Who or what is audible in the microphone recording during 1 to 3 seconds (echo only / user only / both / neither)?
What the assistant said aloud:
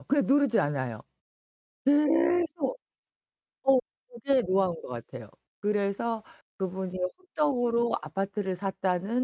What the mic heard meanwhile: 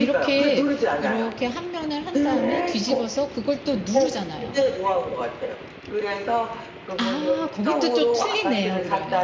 both